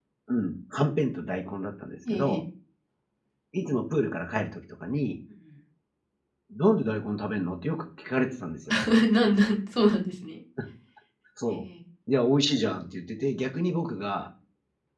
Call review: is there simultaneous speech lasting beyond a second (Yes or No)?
No